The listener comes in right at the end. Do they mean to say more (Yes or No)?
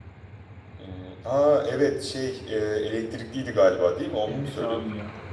Yes